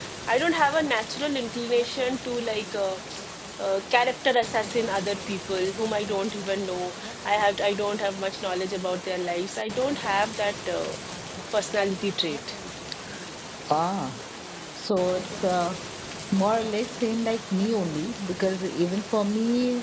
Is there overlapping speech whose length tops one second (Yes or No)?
No